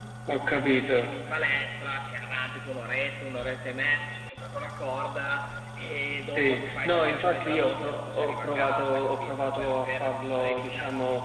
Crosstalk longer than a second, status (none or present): present